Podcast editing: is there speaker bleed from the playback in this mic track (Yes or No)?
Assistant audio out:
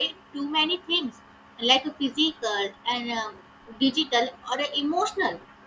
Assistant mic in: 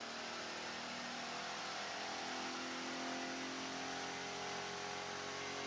No